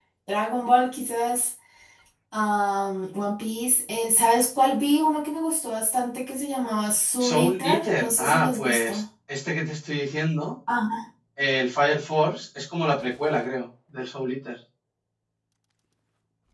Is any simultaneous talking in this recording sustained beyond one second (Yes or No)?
Yes